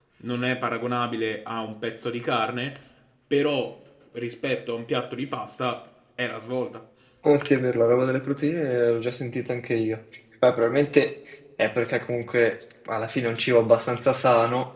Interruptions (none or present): none